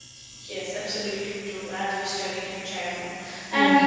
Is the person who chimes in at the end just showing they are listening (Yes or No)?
Yes